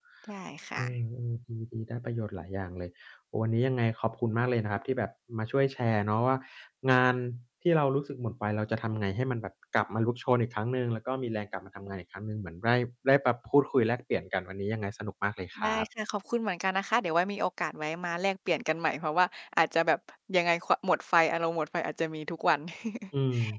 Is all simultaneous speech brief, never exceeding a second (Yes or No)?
Yes